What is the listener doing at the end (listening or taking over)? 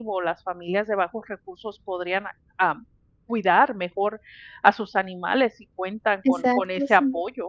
listening